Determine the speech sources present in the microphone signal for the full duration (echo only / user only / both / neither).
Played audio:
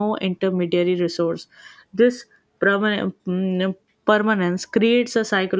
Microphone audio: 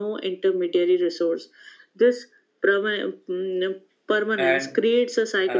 both